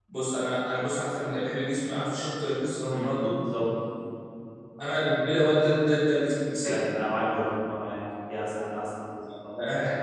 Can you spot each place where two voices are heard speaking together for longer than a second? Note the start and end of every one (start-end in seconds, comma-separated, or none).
none